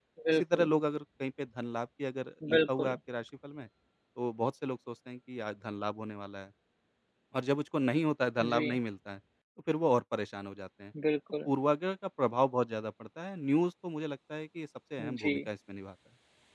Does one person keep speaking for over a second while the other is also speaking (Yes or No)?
No